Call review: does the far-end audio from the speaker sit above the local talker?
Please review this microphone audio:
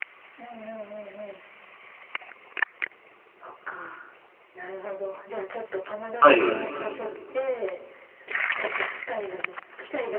No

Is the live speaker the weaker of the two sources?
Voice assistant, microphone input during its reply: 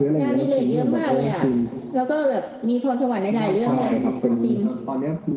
Yes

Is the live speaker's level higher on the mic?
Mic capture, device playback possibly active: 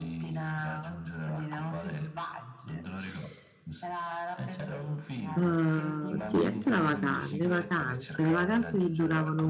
Yes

